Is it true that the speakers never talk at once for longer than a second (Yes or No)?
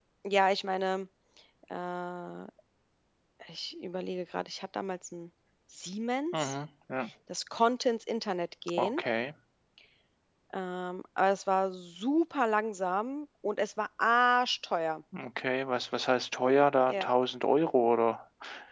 Yes